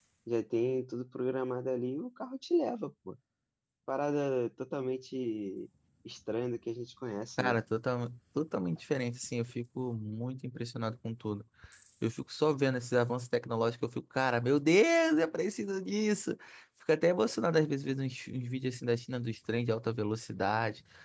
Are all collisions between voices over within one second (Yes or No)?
Yes